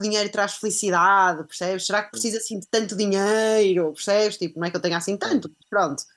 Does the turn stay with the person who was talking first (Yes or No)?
Yes